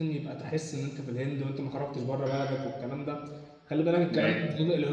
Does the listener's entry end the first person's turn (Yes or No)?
No